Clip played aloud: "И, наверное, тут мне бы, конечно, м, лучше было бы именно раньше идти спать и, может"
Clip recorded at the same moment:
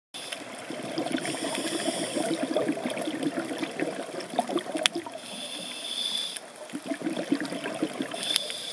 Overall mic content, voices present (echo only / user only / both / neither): neither